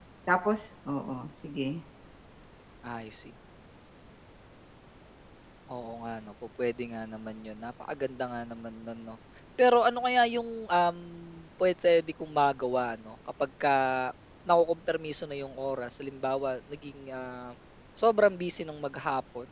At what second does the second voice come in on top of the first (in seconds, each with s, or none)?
none